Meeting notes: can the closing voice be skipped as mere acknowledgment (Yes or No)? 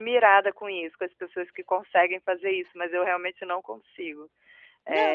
No